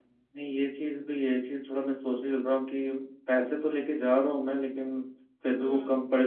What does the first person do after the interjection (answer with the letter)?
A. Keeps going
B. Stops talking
A